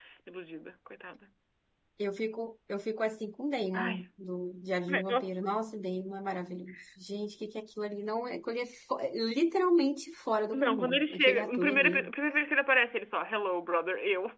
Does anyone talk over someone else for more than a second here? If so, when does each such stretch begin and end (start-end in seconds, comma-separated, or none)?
10.5-12.1